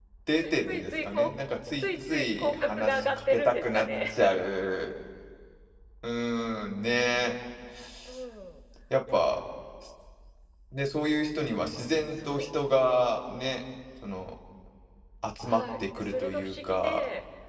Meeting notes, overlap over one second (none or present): present